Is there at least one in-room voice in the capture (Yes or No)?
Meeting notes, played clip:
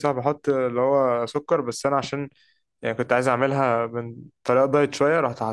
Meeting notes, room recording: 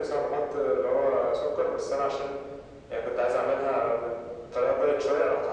No